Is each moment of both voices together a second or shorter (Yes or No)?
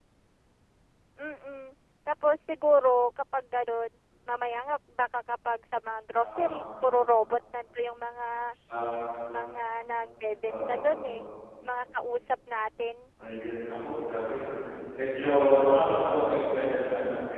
Yes